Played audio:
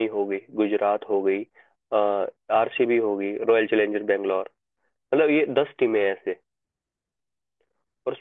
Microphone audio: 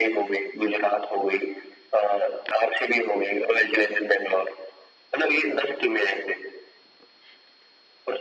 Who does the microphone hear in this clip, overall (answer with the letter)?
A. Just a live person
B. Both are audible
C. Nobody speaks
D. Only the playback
D